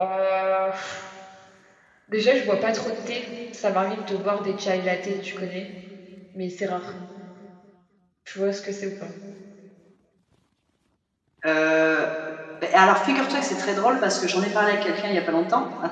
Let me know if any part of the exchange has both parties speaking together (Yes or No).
No